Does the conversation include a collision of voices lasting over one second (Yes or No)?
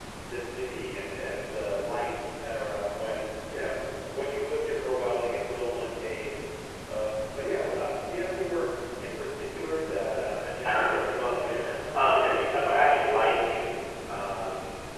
Yes